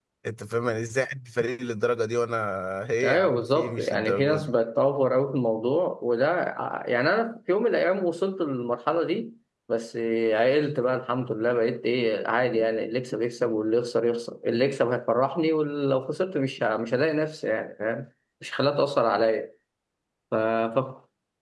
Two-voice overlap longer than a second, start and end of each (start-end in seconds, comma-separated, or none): 3.0-4.5